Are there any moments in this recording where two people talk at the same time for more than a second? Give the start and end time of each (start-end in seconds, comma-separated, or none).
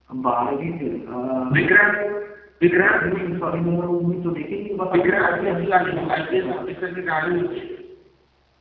4.9-6.5